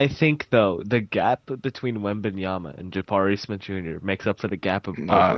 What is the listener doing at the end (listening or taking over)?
taking over